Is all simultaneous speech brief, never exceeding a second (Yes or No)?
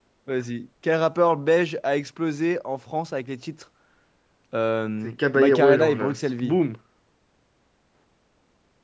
No